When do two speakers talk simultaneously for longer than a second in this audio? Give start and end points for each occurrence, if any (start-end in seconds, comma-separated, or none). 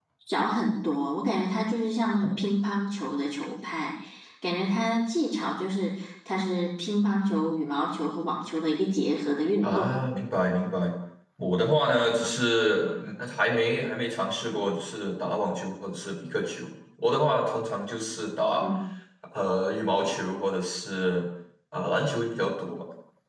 none